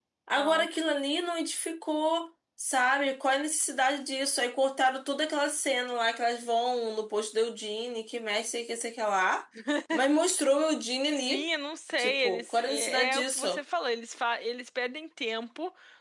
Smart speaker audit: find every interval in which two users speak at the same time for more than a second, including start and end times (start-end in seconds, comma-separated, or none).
12.0-13.6